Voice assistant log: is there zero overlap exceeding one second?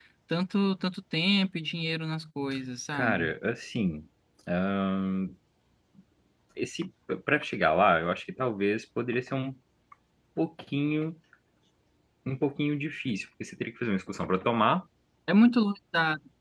Yes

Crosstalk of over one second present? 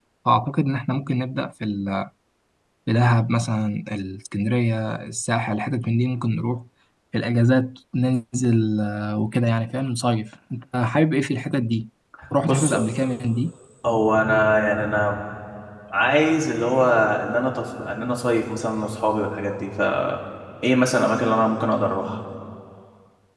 No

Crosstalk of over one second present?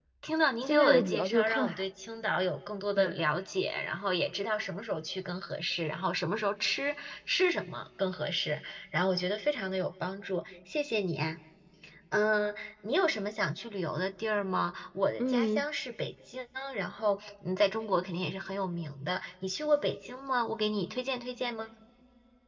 Yes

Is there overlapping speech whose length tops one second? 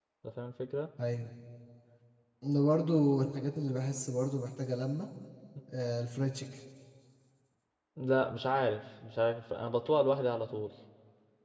No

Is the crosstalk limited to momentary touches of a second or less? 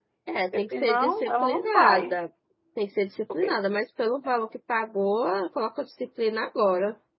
No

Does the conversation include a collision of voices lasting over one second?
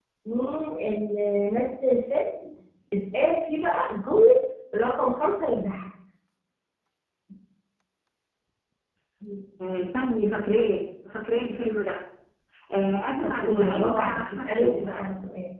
Yes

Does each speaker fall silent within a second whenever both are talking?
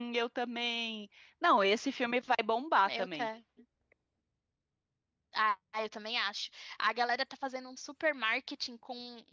Yes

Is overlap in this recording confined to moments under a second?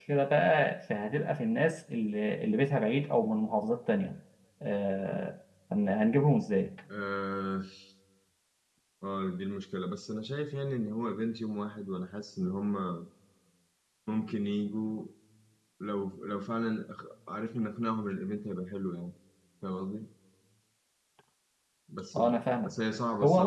Yes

